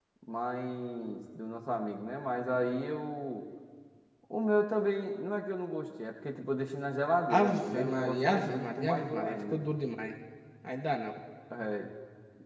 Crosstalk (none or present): present